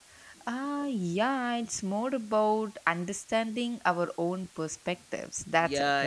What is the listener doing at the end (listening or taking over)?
taking over